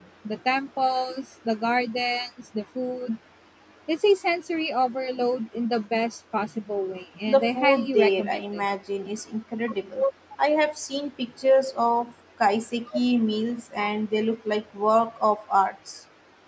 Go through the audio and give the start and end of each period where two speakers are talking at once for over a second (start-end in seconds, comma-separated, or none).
7.3-8.7